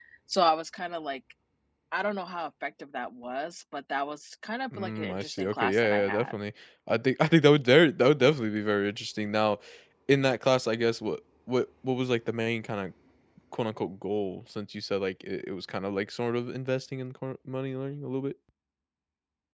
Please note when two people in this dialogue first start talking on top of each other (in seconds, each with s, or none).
4.7 s